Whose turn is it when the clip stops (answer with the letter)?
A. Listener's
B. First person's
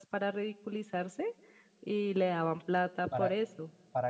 A